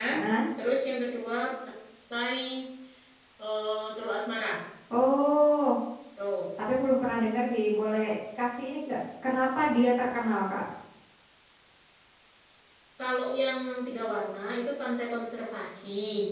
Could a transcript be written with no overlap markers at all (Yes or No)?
Yes